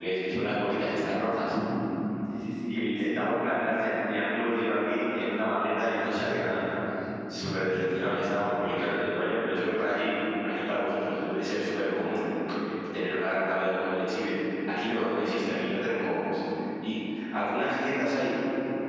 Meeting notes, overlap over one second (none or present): present